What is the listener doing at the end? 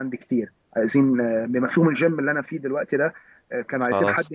listening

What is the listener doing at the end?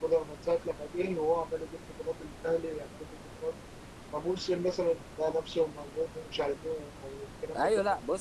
taking over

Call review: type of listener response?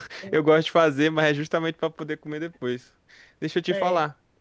listening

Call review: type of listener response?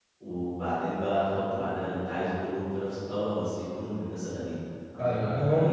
taking over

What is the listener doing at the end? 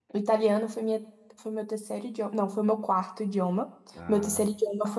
listening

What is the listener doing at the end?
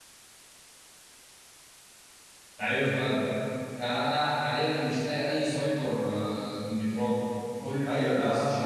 taking over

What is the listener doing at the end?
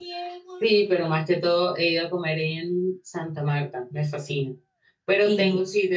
listening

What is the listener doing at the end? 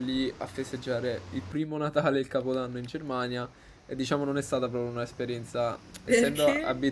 listening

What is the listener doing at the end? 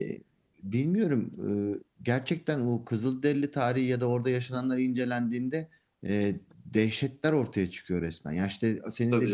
listening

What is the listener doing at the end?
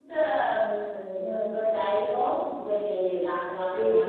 listening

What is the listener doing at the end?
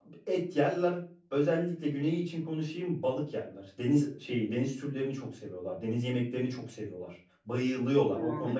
listening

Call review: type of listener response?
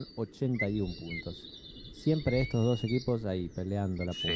taking over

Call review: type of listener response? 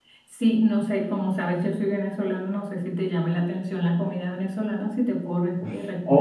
taking over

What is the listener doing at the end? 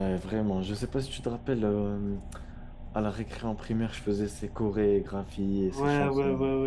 taking over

